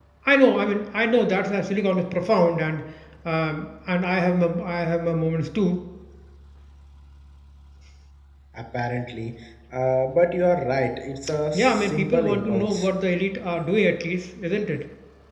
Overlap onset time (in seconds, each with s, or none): 11.5 s